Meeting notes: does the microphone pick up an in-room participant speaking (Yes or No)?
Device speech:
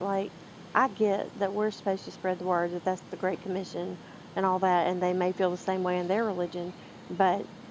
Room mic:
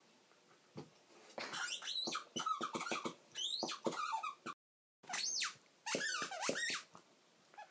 No